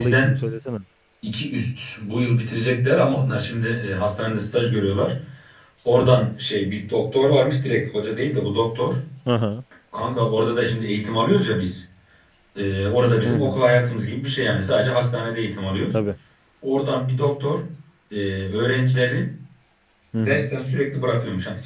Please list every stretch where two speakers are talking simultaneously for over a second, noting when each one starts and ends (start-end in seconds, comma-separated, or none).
none